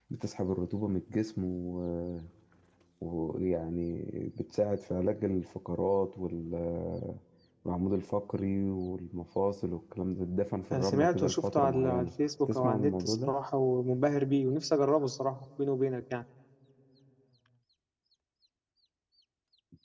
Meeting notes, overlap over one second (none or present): present